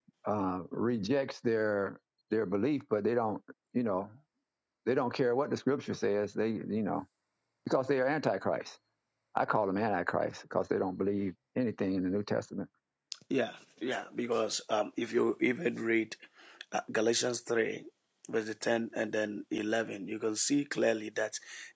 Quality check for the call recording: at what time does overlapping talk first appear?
none

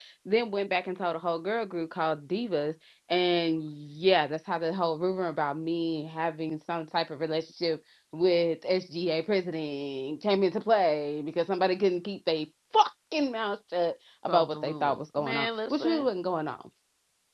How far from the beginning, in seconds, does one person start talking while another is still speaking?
14.3 s

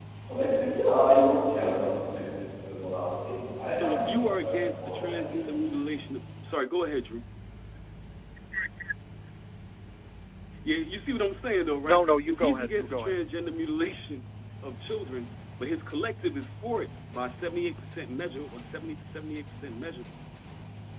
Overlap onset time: 3.7 s

